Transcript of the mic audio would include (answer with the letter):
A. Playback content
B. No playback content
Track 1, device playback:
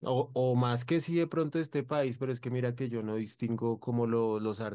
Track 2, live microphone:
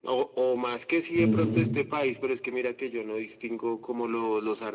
A